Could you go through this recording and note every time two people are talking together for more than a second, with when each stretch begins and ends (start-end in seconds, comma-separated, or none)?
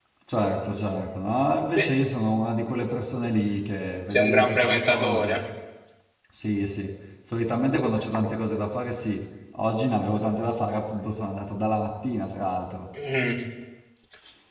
4.1-5.4